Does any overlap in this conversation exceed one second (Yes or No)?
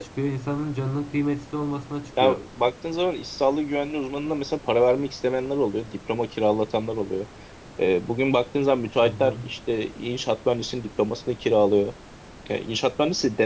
No